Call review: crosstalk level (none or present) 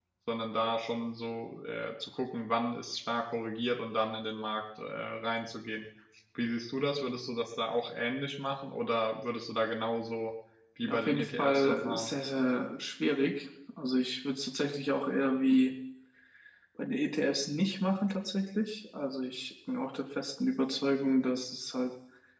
present